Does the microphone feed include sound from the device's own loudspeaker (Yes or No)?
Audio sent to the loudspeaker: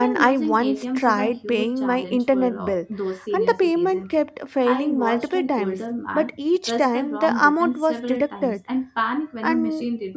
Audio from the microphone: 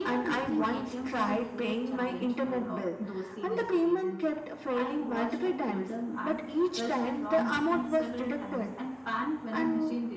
Yes